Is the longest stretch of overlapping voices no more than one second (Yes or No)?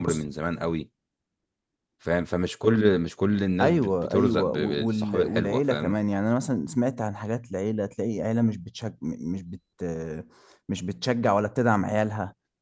No